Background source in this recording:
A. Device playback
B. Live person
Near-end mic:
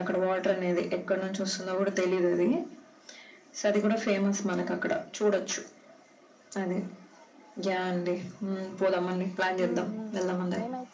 B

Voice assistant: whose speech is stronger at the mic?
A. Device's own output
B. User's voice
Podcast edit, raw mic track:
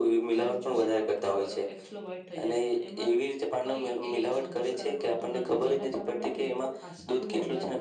A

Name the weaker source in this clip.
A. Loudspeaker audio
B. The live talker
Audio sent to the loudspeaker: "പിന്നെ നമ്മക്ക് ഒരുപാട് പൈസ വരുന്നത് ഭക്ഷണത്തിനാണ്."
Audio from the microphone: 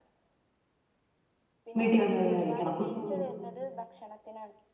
A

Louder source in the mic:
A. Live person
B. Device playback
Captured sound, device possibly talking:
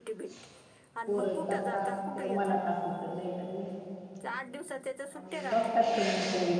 A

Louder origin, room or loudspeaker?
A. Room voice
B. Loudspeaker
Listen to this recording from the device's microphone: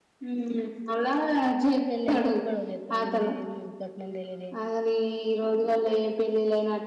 B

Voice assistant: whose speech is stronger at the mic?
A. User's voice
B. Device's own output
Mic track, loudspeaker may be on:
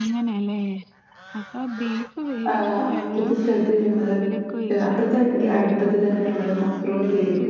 A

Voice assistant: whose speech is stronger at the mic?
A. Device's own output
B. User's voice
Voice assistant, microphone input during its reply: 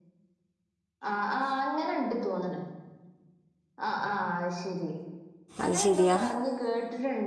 B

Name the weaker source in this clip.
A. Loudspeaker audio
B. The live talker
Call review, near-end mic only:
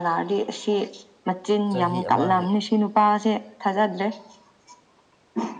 B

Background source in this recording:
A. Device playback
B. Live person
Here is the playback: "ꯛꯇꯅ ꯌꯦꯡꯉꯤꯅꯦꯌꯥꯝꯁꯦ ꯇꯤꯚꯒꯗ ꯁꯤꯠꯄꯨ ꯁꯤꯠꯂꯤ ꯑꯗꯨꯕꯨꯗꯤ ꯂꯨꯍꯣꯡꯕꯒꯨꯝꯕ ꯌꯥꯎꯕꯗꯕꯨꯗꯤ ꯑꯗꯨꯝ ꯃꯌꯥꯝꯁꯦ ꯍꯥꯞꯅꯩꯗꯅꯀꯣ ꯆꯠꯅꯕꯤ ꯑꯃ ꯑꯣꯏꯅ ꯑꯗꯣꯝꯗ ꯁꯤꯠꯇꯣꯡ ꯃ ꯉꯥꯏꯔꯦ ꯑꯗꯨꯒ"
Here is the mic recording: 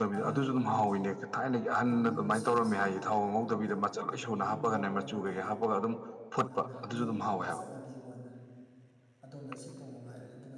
A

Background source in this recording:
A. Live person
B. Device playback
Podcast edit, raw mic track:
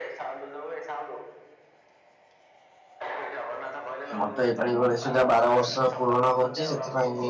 B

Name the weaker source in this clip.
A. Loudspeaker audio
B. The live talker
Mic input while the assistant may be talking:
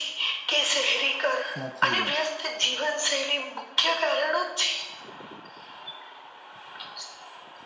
B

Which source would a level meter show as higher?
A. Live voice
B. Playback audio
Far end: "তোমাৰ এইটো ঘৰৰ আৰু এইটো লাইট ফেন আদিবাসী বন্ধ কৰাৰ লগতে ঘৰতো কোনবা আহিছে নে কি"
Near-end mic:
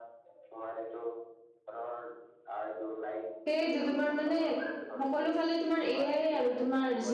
A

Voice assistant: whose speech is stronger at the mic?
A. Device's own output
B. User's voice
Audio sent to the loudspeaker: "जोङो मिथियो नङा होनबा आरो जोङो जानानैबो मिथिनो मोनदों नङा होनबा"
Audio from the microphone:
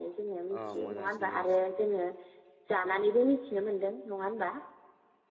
A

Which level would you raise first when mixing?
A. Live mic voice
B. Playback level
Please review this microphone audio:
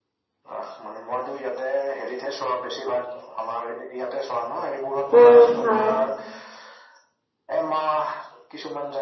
B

